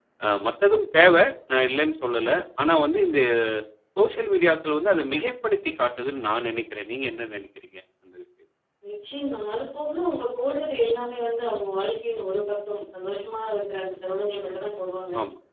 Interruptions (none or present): none